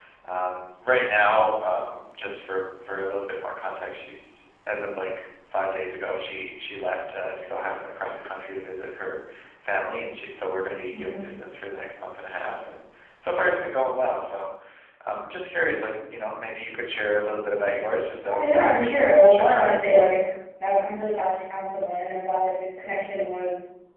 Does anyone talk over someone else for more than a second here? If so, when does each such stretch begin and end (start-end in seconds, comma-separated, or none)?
18.3-20.1